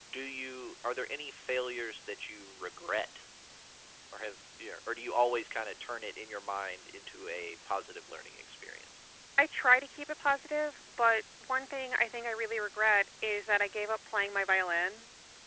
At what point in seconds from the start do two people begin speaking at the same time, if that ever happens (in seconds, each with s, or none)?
none